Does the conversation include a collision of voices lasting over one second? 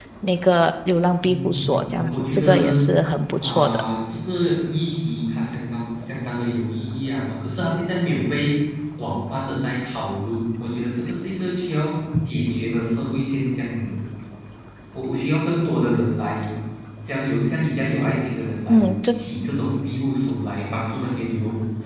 Yes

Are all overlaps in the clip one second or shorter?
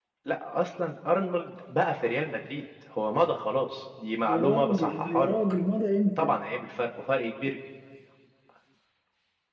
No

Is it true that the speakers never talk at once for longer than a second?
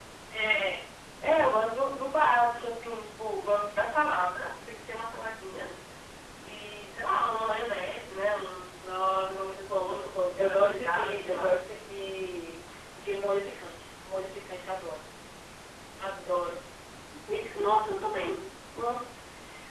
No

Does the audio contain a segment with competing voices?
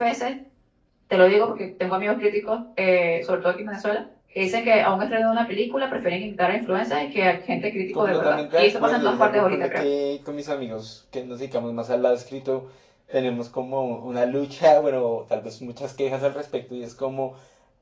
Yes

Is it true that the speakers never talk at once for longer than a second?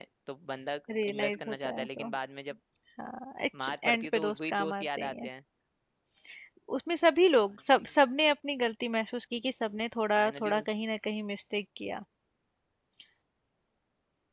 No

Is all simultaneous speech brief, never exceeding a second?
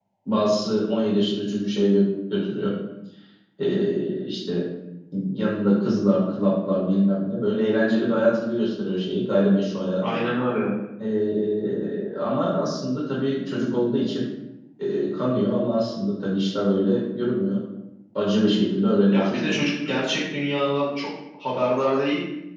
Yes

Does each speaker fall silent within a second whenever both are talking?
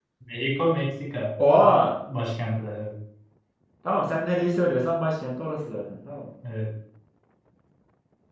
Yes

